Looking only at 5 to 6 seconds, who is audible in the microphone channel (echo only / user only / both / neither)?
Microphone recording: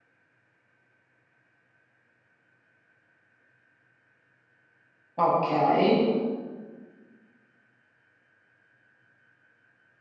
user only